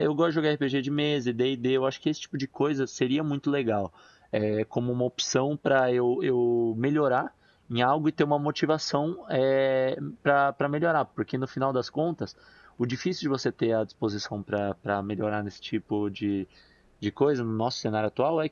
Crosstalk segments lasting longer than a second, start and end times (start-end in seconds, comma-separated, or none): none